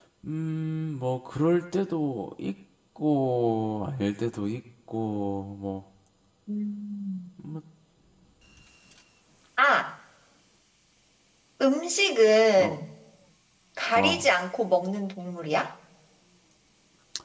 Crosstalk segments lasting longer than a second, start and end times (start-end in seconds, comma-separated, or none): none